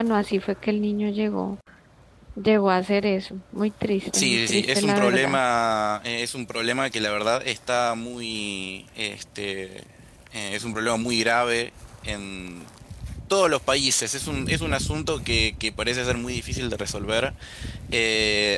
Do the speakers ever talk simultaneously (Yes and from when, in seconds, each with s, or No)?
Yes, from 4.1 s